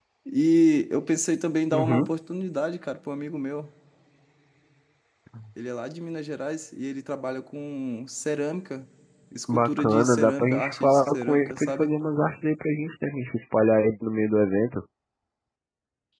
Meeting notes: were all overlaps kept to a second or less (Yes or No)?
No